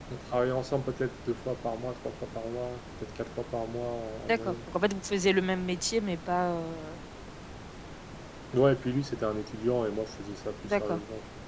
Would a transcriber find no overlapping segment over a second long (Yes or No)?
Yes